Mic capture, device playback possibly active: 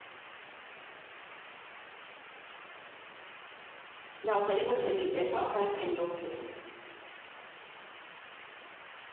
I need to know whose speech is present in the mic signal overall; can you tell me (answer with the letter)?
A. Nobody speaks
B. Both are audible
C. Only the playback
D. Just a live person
D